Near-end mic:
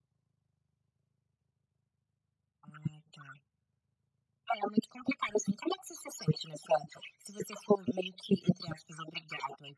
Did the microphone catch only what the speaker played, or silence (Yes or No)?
Yes